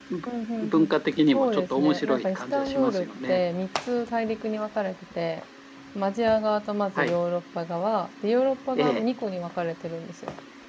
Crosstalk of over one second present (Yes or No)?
Yes